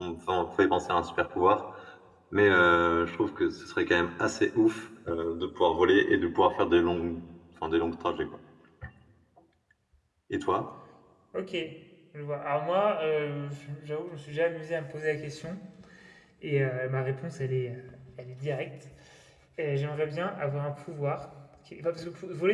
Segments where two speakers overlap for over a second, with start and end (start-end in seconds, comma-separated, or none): none